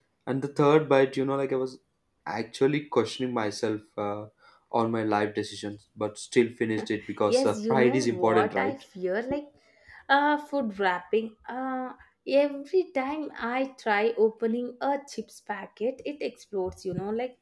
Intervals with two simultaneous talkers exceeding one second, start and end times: 7.3-8.7

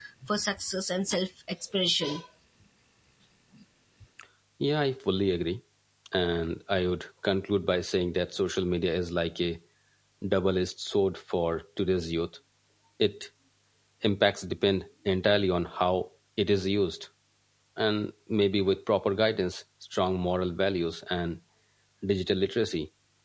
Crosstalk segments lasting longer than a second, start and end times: none

